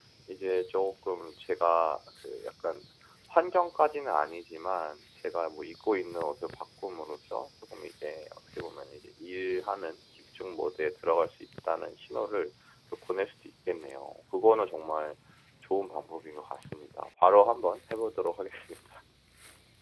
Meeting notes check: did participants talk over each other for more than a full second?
No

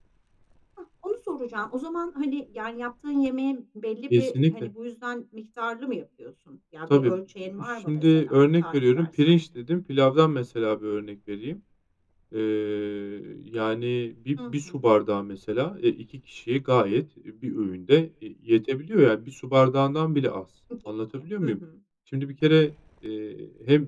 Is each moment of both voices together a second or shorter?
No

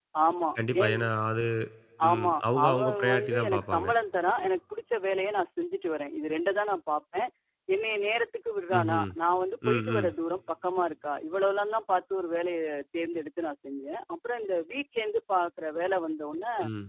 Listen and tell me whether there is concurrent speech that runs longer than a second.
Yes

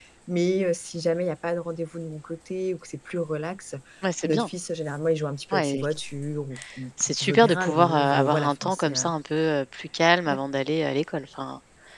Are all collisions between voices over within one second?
No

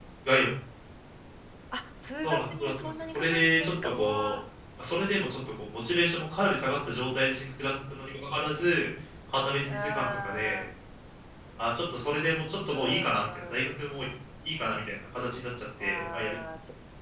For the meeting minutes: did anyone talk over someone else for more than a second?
Yes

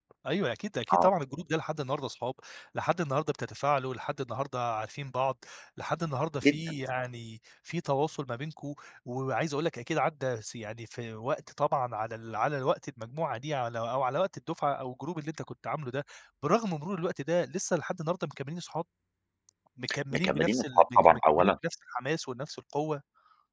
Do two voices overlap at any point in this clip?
Yes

